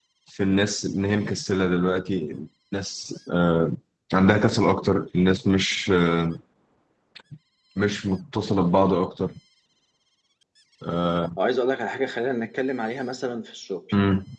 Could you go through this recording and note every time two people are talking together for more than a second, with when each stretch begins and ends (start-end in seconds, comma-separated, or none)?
none